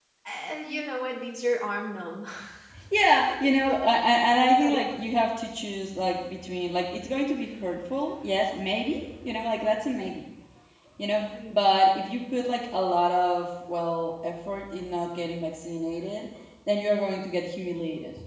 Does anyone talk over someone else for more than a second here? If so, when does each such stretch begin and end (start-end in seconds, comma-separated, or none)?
none